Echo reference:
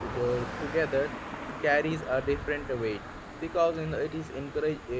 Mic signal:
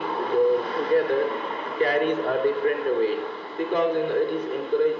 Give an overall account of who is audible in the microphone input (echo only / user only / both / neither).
echo only